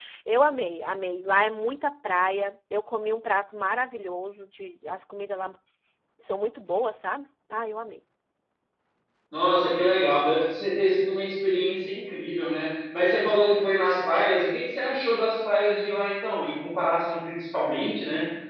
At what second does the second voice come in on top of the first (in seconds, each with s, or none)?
none